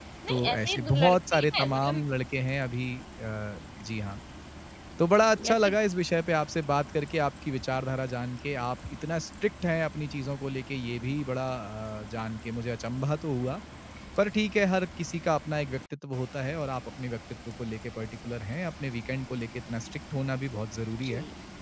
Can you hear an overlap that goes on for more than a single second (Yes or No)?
Yes